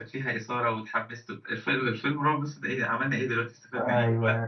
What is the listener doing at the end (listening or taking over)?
taking over